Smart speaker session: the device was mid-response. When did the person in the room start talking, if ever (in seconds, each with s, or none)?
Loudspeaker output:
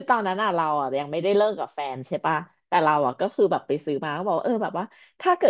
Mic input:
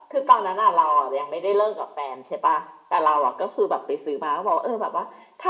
none